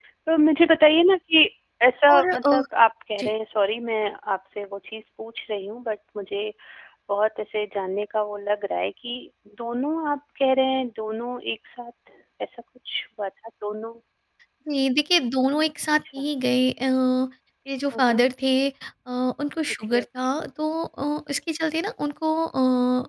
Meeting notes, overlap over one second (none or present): none